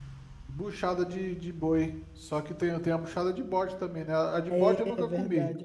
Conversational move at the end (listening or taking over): taking over